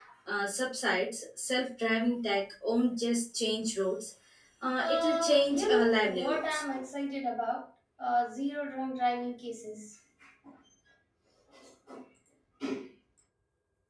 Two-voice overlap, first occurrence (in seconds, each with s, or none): 4.8 s